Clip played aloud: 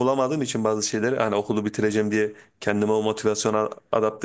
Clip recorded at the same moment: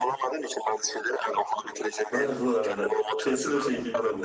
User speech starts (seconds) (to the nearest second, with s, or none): 2 s